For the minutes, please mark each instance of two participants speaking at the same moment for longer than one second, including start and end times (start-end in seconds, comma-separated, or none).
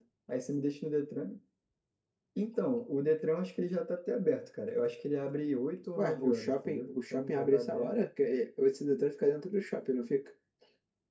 6.0-7.9